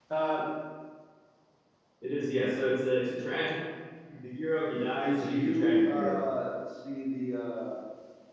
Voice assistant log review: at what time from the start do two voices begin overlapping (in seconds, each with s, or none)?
5.0 s